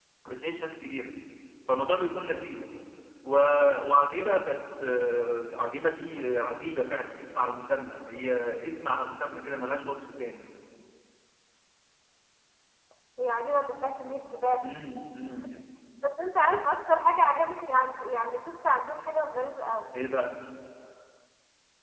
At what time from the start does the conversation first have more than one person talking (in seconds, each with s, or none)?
none